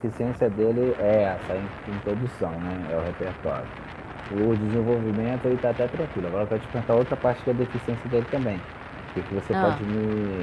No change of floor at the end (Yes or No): Yes